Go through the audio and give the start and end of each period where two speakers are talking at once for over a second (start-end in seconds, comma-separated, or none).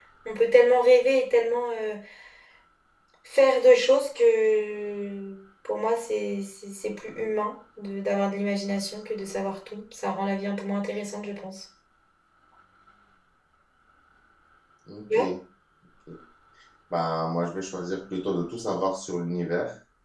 none